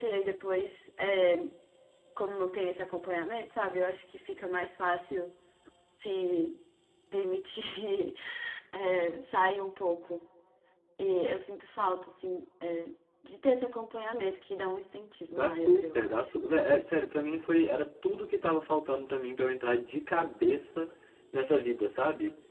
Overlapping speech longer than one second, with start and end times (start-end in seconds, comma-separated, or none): 15.3-17.6